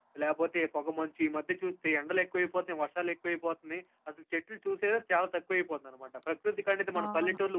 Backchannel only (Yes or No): Yes